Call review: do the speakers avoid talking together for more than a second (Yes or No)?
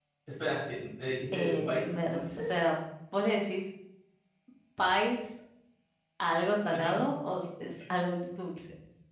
No